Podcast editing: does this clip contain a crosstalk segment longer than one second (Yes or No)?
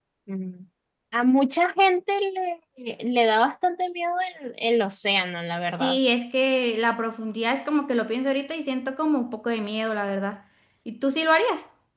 No